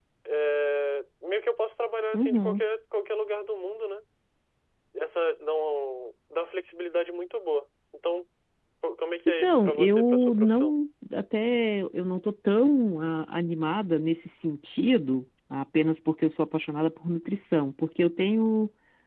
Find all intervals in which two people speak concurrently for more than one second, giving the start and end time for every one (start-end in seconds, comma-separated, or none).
9.3-10.7